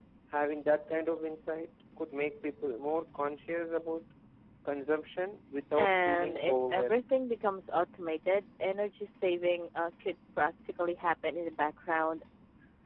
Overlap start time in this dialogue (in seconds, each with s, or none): 5.8 s